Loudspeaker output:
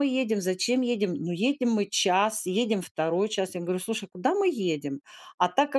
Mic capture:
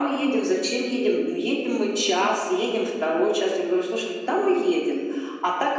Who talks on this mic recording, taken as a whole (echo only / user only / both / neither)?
echo only